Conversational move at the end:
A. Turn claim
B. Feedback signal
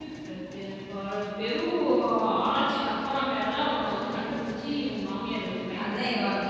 A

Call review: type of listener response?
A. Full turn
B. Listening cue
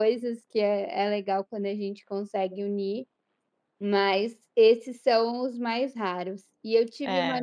B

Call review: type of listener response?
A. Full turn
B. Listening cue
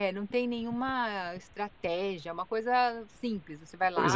A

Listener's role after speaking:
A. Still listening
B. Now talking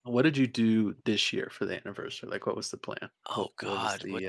B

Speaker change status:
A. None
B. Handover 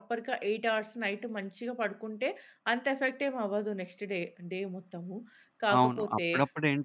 B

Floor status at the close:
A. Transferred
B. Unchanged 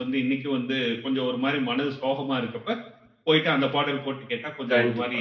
A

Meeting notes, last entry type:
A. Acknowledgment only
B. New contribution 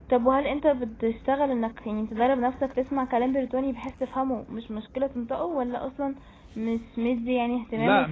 B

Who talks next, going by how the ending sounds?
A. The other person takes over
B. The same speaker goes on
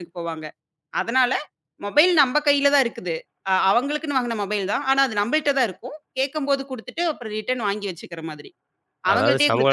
A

